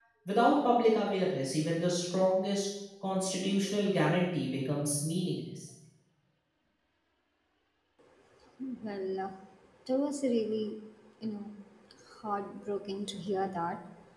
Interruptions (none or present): none